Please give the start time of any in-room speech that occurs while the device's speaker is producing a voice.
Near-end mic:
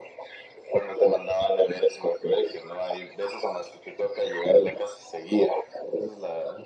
none

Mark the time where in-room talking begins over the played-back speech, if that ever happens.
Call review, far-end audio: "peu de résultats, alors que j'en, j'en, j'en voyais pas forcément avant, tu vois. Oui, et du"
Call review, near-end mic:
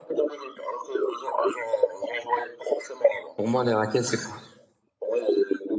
3.3 s

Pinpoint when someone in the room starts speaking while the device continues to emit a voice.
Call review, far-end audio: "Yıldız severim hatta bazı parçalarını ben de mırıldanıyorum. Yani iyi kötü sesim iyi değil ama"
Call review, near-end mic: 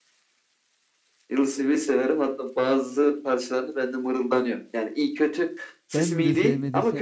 5.9 s

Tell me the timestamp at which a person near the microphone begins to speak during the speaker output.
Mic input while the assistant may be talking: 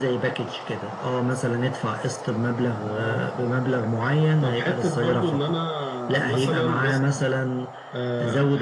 none

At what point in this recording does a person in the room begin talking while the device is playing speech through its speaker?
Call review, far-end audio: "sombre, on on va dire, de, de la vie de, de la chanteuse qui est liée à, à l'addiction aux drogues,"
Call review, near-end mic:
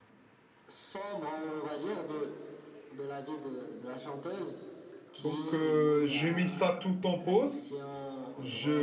5.2 s

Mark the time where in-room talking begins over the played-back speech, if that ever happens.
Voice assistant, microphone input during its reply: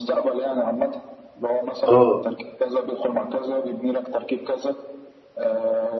1.9 s

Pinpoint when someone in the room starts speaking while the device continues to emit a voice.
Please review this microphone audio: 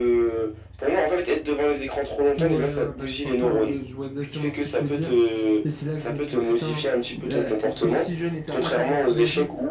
2.4 s

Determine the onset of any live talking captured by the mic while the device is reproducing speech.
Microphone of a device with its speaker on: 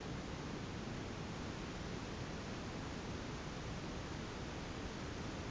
none

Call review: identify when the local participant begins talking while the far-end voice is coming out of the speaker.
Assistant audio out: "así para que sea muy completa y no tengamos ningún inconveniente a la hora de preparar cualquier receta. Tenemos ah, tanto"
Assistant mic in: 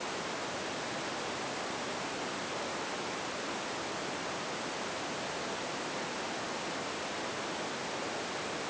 none

